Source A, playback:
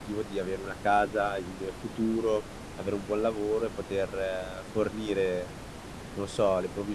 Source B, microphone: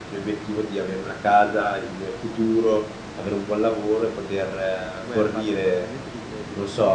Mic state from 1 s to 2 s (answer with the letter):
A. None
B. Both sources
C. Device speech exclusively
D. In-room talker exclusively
C